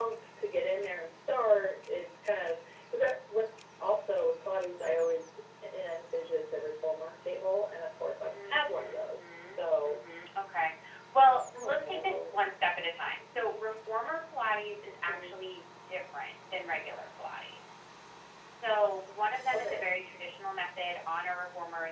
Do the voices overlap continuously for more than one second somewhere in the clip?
Yes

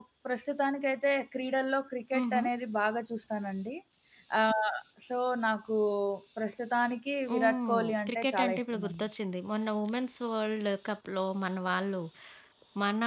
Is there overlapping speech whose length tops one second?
Yes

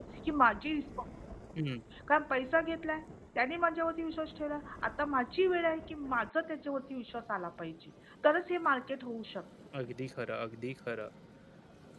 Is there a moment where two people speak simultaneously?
No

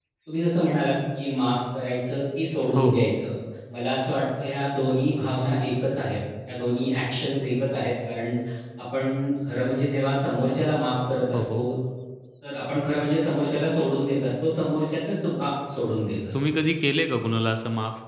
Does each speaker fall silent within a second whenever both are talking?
Yes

